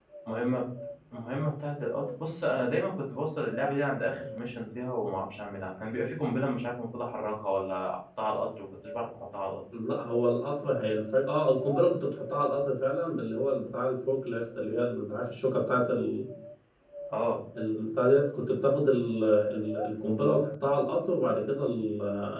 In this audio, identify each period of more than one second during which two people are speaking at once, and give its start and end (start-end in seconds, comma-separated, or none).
none